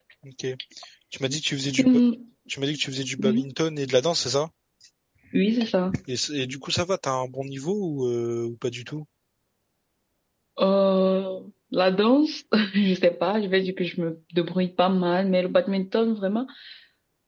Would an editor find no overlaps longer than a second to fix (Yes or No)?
Yes